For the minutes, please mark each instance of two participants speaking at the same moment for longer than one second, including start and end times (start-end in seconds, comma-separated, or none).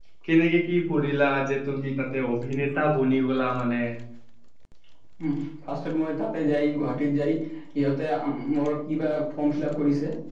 none